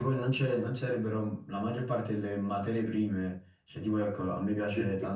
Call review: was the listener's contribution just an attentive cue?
Yes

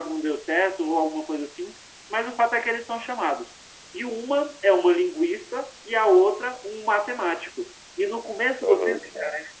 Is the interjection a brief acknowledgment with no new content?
Yes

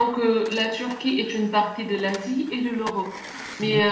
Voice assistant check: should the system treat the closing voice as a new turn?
No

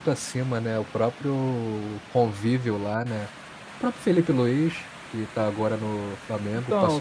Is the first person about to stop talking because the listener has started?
Yes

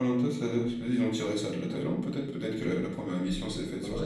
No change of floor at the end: No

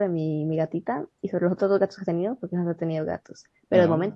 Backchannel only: Yes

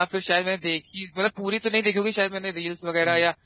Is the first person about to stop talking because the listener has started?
No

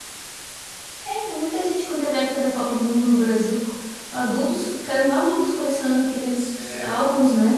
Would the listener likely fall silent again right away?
Yes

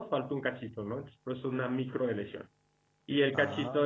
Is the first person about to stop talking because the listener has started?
No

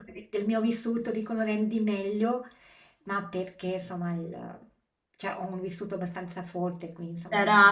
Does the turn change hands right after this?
Yes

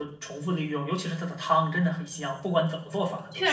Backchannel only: No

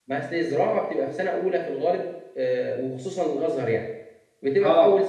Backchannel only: Yes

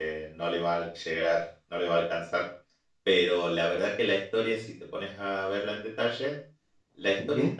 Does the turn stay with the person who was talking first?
Yes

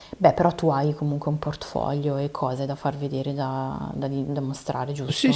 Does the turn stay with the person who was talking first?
No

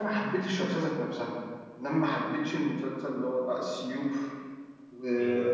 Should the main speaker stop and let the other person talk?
No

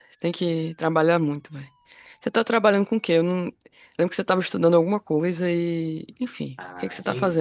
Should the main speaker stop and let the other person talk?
Yes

